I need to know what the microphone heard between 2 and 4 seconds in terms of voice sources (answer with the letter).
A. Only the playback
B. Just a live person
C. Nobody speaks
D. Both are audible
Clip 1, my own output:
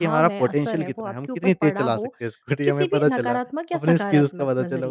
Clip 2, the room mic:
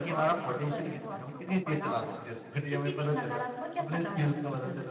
A